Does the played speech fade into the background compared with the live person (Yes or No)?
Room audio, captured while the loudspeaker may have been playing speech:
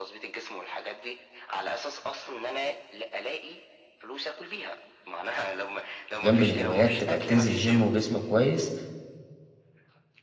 Yes